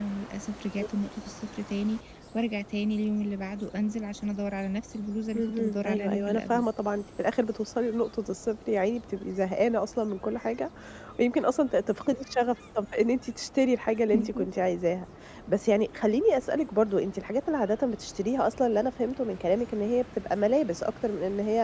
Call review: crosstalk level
present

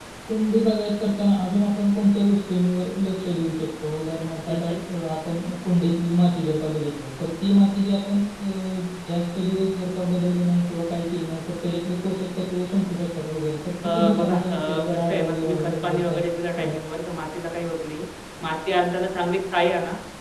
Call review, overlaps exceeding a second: present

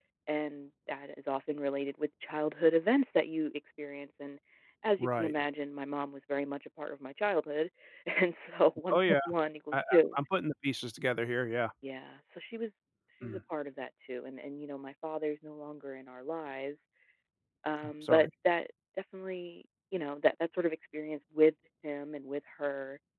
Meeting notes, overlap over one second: none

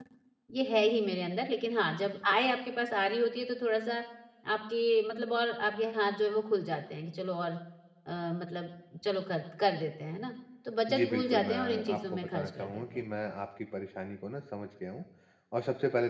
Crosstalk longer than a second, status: present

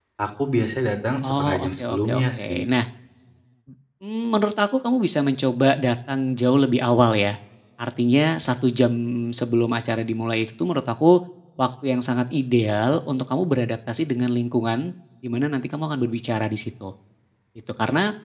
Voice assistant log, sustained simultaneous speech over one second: present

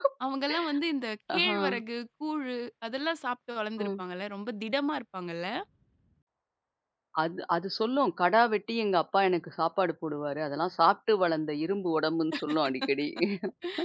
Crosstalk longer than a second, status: none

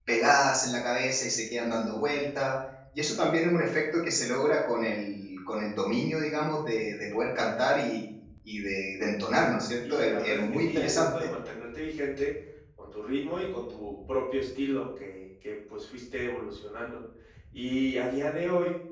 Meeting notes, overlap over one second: present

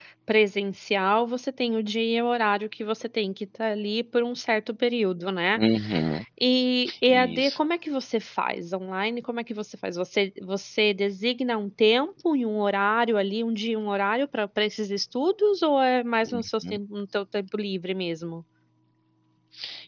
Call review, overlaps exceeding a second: none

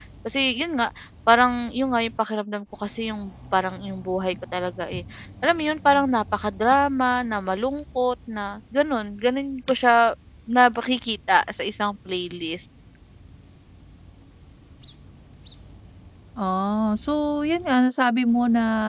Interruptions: none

